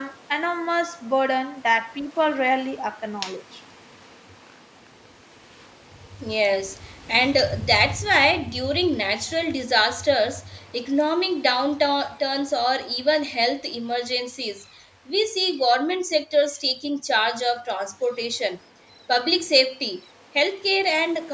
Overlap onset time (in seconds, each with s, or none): none